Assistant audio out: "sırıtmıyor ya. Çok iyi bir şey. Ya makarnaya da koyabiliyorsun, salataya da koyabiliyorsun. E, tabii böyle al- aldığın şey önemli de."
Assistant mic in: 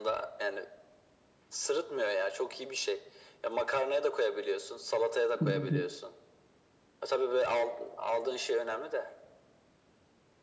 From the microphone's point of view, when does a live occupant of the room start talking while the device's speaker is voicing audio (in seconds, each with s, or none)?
5.3 s